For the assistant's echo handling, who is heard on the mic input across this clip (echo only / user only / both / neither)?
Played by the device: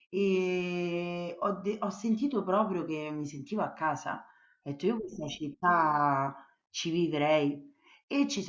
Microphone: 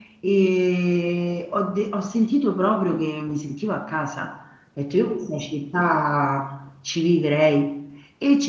echo only